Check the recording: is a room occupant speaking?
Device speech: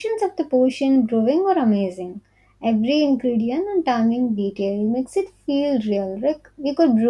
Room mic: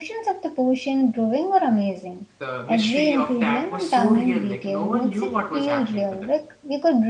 Yes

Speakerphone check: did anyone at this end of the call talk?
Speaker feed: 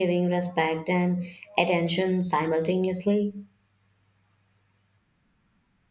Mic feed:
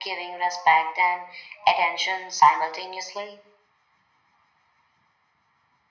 No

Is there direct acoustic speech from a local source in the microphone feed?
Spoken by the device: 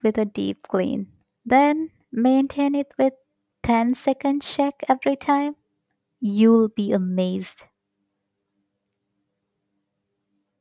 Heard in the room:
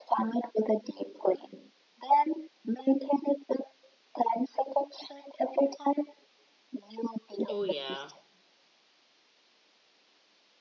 Yes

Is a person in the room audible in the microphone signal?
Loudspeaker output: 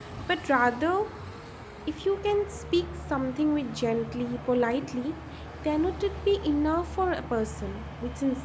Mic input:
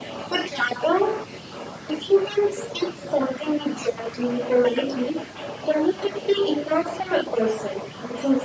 No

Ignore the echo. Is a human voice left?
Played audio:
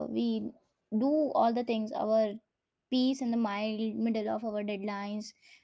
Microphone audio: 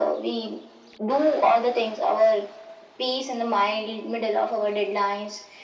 No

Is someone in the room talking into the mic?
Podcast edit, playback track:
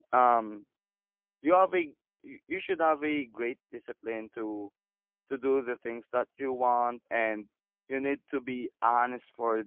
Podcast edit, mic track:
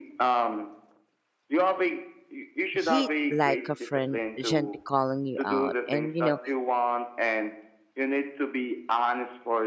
Yes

